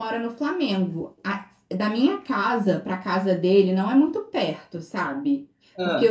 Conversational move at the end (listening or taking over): listening